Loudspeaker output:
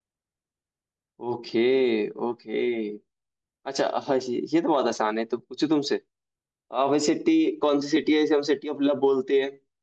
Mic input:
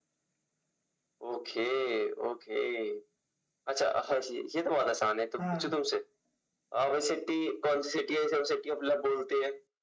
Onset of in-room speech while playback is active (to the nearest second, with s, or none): 5 s